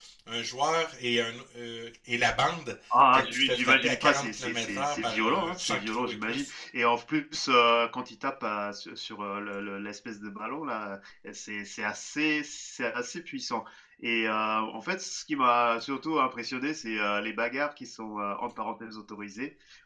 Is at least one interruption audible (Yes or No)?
Yes